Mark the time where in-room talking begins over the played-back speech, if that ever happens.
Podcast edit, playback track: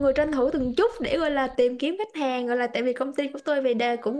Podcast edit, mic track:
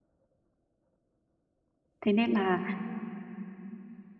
2 s

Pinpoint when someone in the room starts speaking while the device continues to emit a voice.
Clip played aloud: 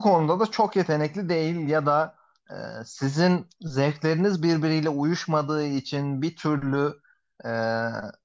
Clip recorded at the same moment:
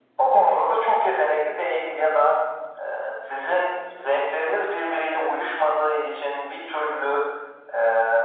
none

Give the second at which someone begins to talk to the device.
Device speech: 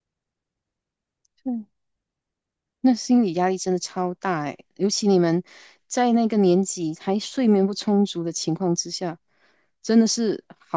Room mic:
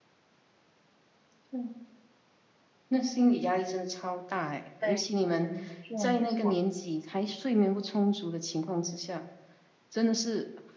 5 s

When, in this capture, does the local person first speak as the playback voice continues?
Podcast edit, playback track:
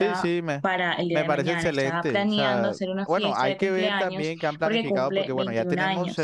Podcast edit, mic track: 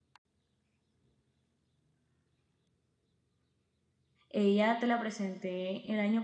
4 s

